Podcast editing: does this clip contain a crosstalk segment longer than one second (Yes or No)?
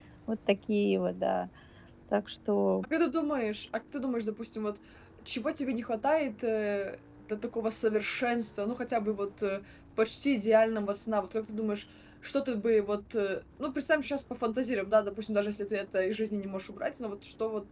No